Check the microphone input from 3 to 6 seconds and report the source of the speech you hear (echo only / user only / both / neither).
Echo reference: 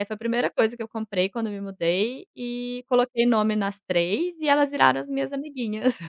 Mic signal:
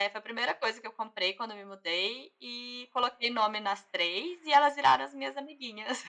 echo only